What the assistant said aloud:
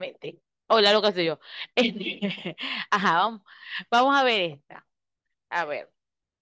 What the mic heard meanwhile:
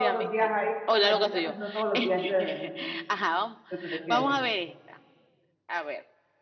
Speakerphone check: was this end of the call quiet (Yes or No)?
No